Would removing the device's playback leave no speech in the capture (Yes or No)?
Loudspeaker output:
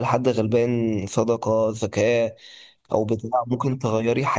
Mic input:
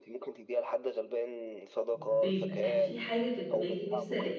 No